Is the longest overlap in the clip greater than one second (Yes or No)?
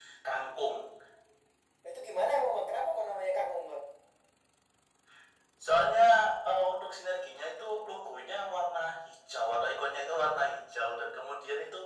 No